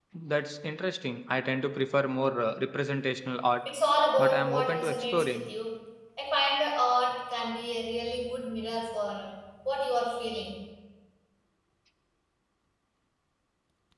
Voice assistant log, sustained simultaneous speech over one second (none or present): present